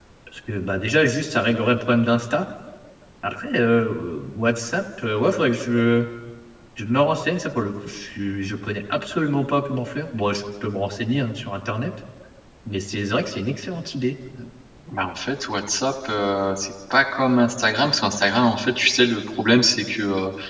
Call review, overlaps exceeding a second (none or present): none